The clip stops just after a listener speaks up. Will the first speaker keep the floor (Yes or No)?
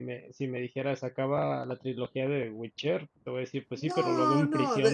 No